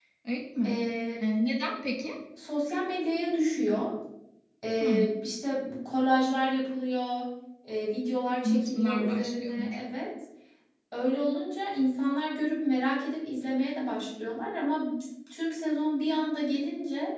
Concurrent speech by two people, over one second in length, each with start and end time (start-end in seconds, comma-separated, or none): 8.4-9.8